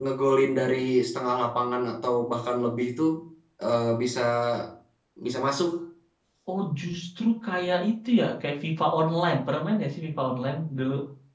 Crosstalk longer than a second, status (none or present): none